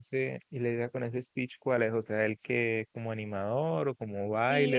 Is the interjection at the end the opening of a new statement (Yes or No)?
Yes